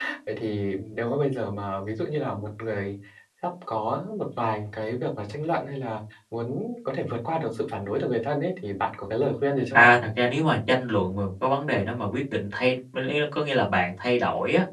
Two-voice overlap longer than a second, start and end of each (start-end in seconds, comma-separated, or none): none